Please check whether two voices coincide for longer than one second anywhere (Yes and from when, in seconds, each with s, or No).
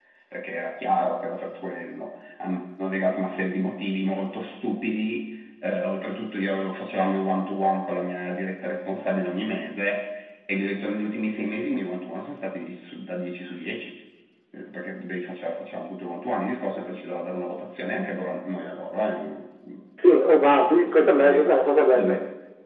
Yes, from 20.2 s